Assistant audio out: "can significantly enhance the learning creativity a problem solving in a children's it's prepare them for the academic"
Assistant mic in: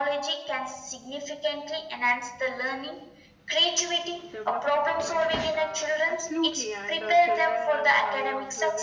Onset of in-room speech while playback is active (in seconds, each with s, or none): 4.3 s